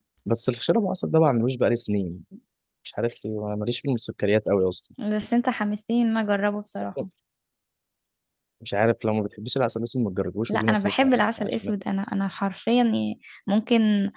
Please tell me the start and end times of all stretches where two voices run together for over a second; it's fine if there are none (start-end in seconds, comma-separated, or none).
10.5-11.7